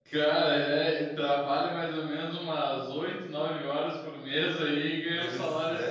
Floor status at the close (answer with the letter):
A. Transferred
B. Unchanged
A